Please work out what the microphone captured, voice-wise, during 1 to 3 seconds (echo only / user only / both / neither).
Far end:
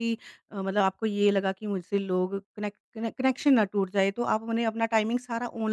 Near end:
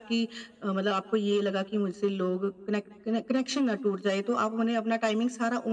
echo only